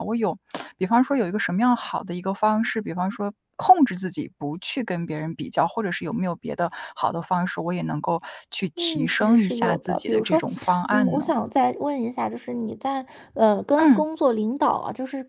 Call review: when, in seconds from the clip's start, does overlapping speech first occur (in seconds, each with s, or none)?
8.8 s